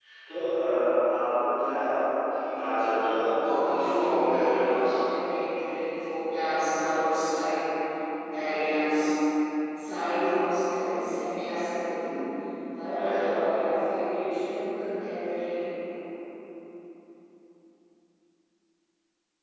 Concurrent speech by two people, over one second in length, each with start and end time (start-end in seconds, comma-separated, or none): 3.6-4.9